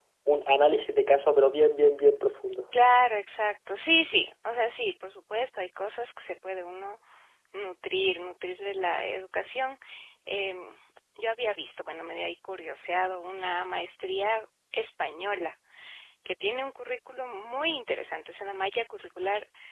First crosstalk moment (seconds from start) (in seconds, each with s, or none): none